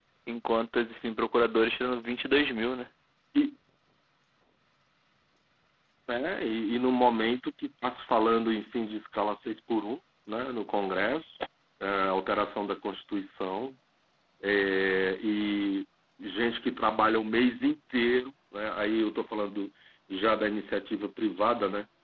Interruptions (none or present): none